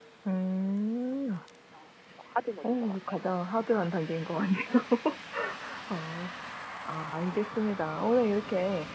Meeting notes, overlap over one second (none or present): none